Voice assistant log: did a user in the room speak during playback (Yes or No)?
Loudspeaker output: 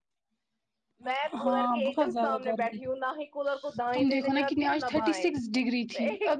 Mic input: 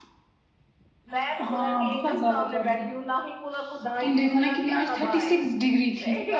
No